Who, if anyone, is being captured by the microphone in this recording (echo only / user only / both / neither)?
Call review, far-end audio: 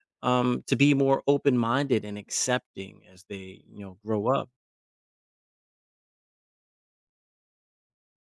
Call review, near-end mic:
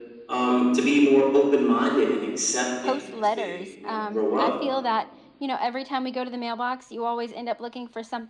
both